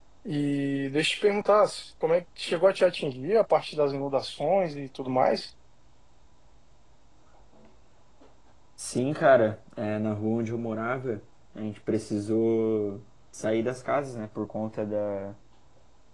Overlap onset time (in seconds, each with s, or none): none